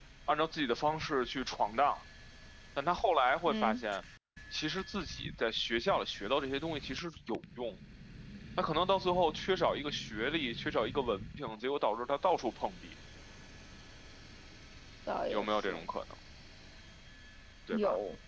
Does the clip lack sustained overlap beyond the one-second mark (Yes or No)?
Yes